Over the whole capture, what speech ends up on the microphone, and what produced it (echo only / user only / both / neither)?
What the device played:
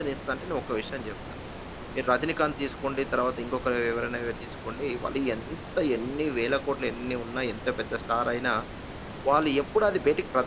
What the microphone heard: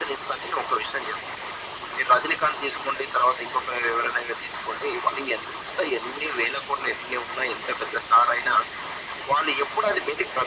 echo only